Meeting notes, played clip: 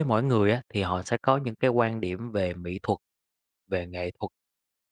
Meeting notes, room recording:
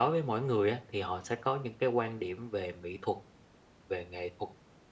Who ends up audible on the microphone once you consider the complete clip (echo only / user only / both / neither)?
echo only